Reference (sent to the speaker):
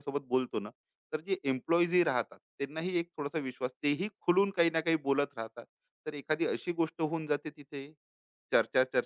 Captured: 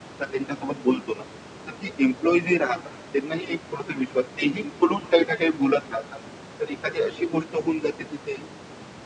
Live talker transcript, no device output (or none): none